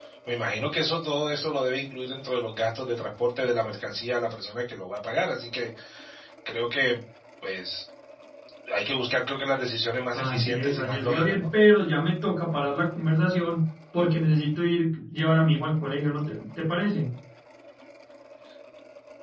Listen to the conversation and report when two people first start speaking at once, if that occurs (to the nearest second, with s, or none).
10 s